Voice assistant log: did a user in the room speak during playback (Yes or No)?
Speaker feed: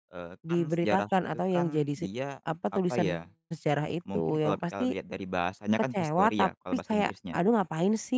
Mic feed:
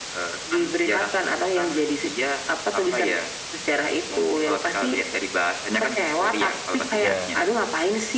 Yes